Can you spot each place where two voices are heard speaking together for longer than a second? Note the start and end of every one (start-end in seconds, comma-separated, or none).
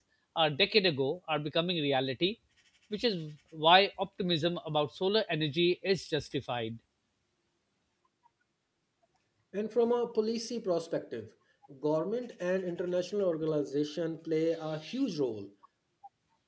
none